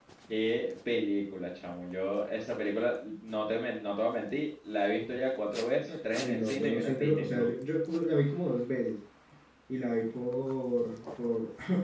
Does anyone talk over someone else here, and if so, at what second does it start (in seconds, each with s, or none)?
6.1 s